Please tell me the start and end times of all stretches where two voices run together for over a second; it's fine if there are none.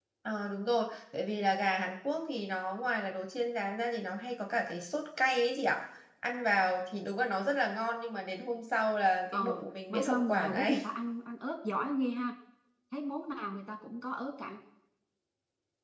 9.3-10.8

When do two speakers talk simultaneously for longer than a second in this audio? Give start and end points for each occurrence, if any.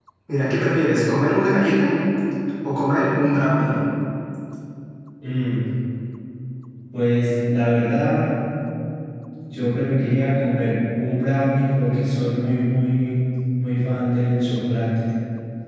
none

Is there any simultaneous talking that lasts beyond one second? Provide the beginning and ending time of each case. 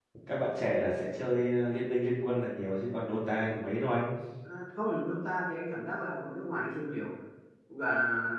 none

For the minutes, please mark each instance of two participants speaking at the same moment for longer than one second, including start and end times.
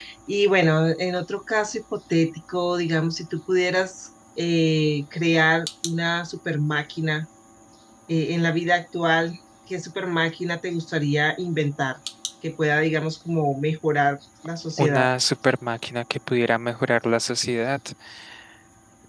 none

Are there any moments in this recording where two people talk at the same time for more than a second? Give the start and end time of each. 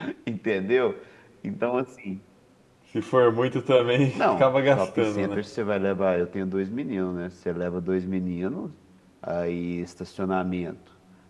4.1-5.4

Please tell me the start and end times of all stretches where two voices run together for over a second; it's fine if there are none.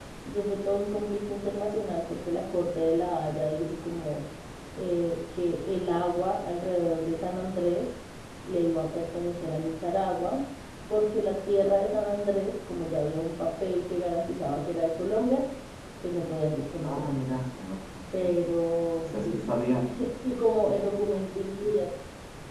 none

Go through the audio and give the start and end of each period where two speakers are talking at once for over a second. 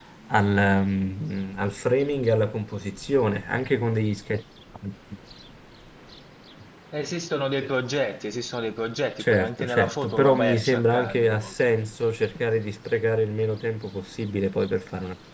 9.2-11.5

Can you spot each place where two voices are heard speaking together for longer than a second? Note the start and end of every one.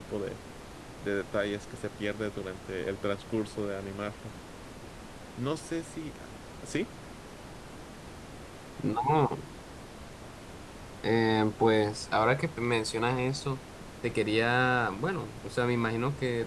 none

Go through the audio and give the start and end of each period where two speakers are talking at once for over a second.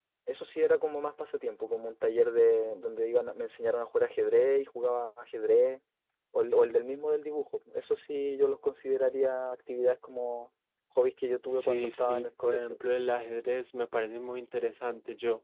11.5-12.8

